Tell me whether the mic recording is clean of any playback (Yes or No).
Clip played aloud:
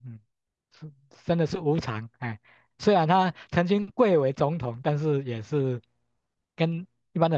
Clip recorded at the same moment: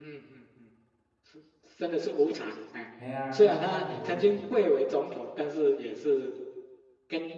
No